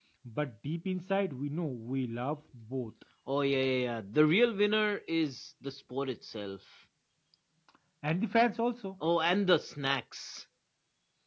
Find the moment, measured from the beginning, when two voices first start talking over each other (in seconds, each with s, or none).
none